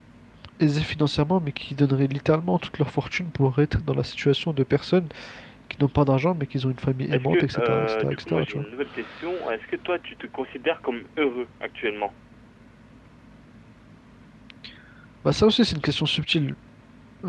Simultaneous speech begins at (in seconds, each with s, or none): 7.1 s